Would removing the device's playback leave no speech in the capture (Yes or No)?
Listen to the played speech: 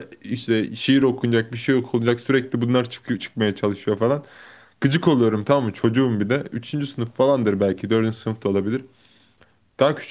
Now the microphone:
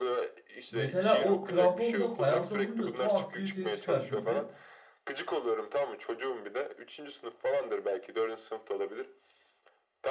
No